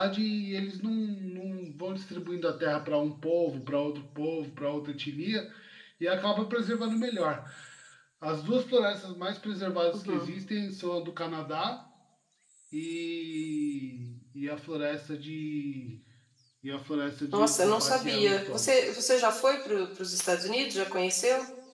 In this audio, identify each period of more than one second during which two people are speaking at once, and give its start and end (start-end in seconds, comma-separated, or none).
17.3-18.7